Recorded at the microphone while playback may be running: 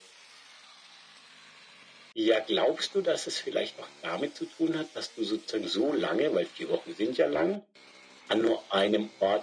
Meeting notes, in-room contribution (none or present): none